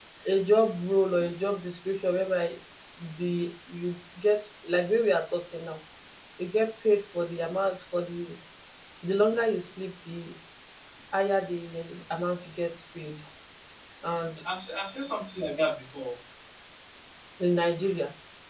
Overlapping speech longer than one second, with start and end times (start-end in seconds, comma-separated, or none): none